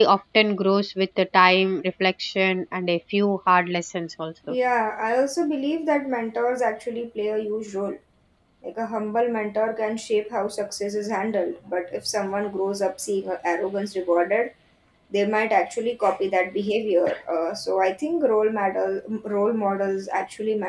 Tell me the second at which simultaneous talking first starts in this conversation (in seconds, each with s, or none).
none